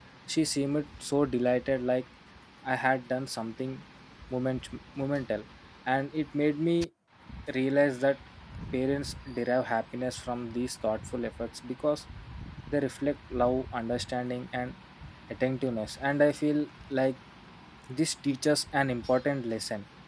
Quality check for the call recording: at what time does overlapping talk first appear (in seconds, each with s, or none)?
none